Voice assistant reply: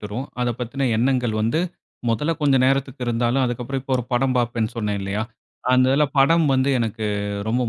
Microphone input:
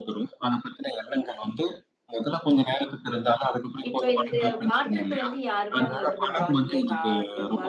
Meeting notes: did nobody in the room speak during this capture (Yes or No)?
No